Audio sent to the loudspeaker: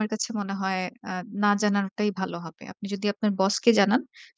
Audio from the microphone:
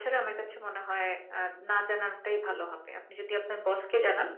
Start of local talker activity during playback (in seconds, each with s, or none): none